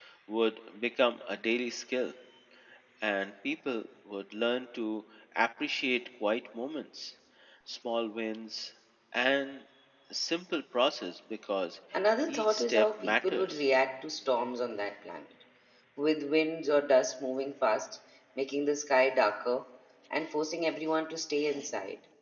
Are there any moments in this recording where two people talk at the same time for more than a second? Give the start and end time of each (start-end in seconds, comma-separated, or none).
12.3-13.6